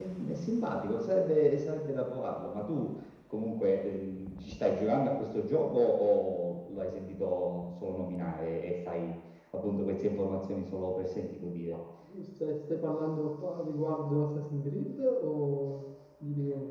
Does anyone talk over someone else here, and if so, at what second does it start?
none

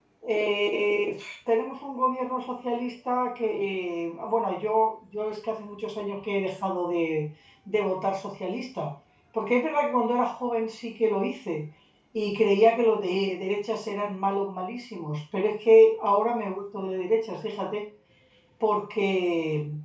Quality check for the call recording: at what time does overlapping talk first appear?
none

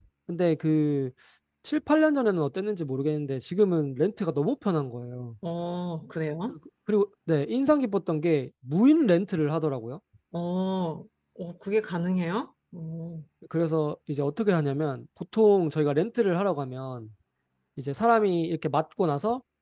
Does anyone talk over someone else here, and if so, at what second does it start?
none

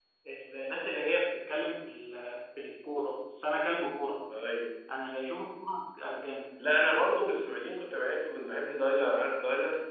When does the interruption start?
none

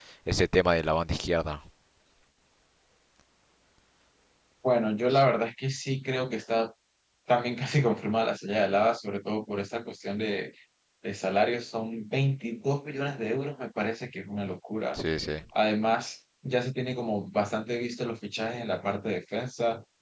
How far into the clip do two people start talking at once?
none

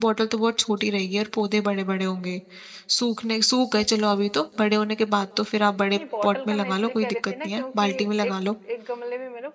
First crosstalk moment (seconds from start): 5.9 s

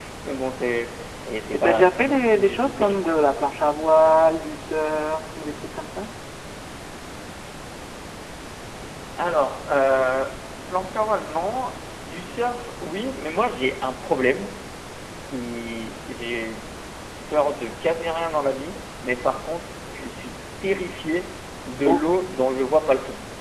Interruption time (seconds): 1.5 s

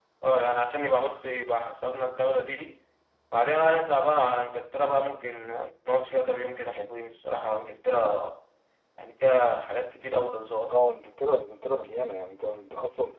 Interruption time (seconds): none

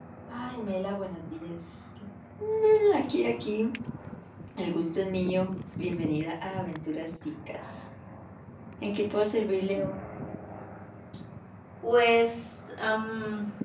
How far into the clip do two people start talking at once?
none

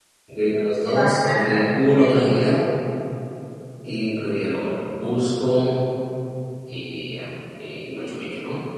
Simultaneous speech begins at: 0.8 s

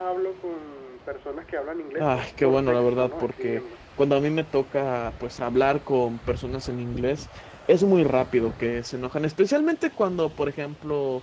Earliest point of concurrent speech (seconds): 2.0 s

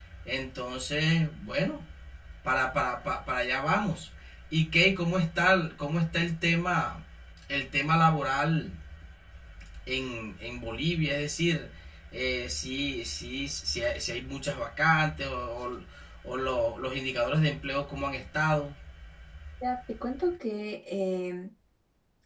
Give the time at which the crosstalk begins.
none

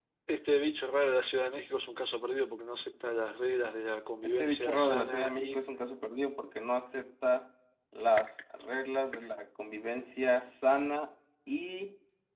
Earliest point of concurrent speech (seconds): 4.2 s

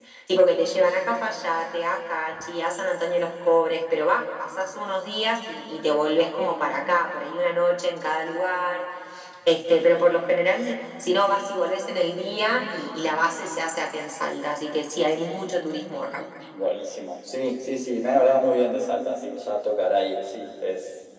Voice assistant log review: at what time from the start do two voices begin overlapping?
none

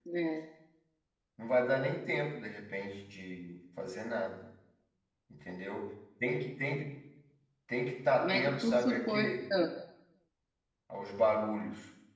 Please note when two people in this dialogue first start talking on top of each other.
8.2 s

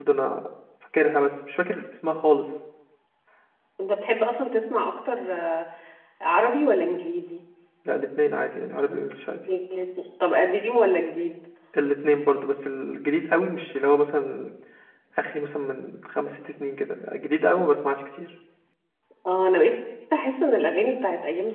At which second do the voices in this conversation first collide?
none

